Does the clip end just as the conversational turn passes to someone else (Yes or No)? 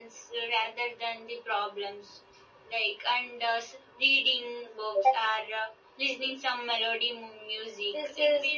Yes